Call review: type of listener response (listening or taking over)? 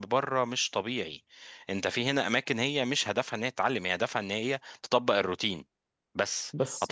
listening